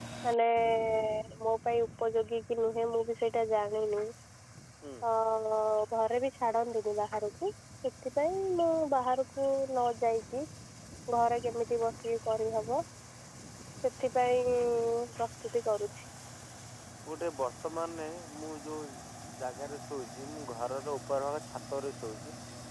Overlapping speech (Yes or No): No